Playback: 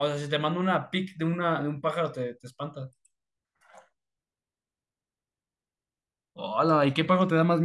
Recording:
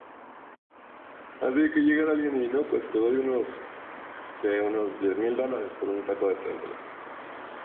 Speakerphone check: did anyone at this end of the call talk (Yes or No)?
Yes